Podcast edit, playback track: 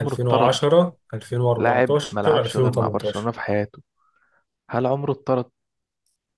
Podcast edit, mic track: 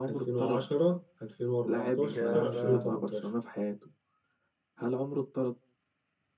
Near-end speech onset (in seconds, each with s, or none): 2.0 s